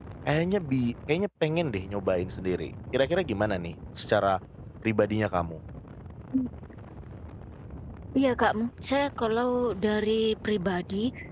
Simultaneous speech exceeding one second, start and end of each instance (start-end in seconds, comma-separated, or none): none